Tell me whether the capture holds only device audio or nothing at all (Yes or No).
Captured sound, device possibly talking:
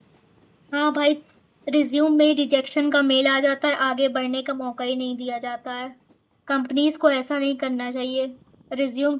No